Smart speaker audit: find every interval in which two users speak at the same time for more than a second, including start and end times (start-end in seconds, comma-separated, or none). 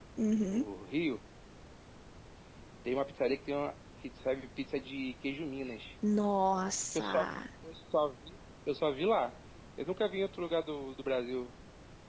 none